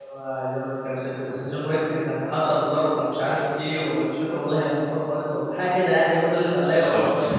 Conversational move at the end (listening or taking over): listening